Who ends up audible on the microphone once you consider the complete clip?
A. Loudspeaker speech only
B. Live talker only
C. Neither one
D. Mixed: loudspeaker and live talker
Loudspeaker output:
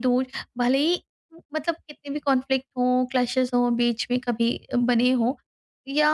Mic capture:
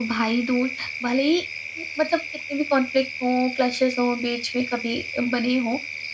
A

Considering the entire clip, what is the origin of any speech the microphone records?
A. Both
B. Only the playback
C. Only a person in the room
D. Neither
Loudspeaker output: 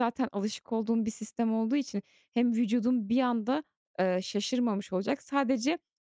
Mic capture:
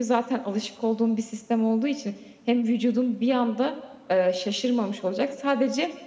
B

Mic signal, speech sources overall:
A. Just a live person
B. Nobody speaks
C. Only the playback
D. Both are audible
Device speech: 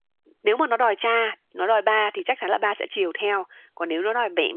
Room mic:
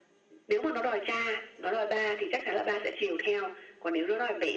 C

